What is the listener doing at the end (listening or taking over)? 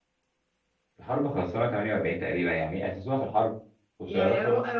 taking over